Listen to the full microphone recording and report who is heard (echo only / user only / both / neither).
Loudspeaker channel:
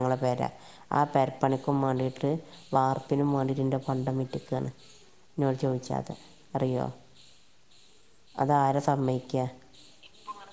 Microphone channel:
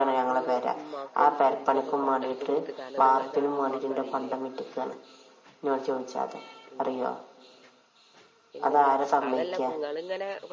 both